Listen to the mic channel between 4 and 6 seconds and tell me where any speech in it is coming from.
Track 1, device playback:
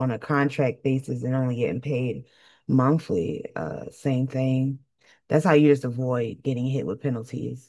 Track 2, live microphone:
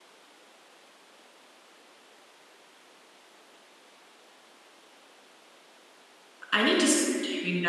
neither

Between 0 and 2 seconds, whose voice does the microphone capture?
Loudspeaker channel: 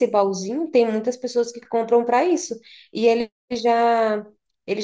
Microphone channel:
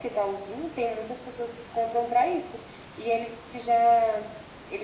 echo only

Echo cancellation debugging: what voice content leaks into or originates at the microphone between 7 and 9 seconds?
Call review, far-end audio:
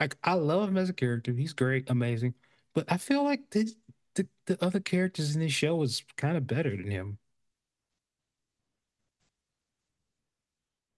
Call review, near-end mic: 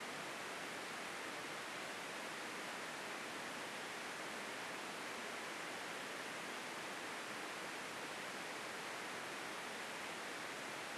neither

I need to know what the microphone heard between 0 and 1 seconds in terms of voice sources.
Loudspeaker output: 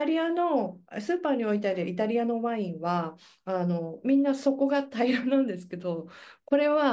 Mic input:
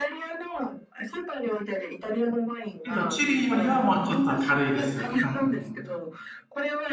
echo only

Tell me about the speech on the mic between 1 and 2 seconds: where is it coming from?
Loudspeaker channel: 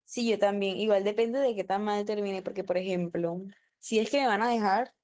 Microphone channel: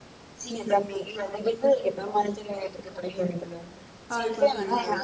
echo only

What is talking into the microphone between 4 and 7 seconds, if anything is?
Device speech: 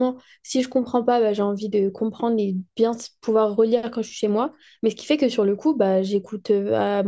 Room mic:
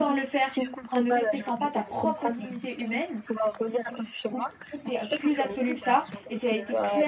both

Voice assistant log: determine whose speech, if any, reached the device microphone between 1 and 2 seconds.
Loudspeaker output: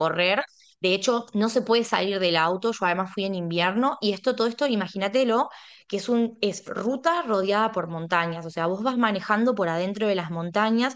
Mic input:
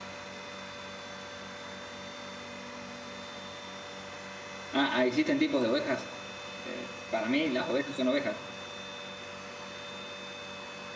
neither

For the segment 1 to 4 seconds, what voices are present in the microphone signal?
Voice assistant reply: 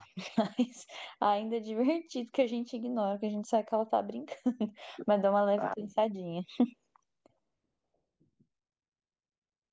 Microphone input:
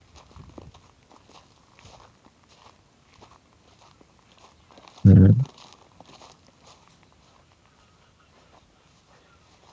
neither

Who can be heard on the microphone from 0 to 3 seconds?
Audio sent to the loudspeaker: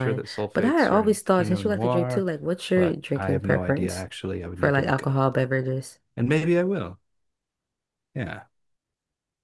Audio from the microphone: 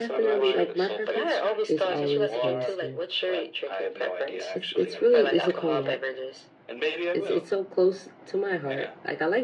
both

